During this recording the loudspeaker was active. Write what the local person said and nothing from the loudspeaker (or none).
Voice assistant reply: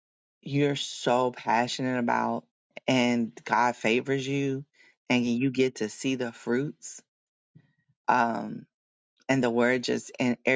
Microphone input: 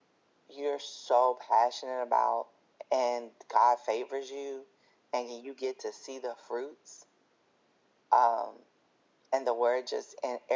none